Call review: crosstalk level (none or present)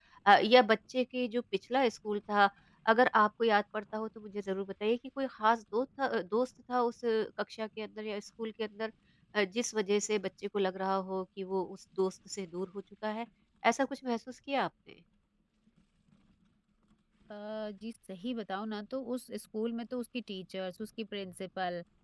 none